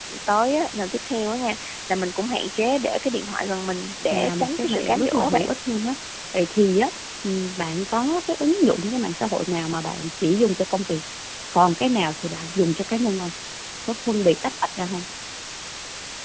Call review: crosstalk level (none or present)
present